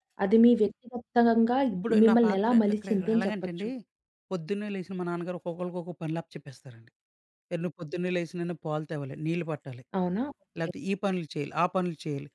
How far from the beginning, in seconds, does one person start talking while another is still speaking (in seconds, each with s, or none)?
1.7 s